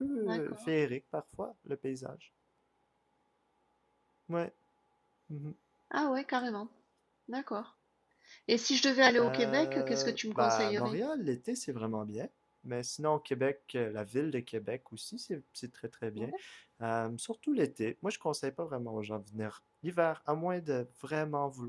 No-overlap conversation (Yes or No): No